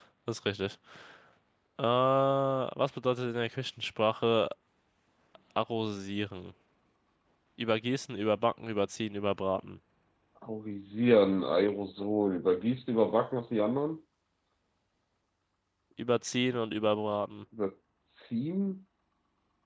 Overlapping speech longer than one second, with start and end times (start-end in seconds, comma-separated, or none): none